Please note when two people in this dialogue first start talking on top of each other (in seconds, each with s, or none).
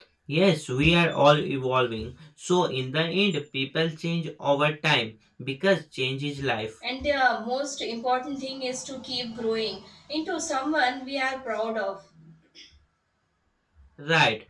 none